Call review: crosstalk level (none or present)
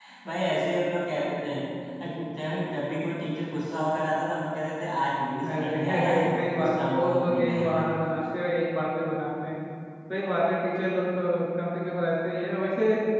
present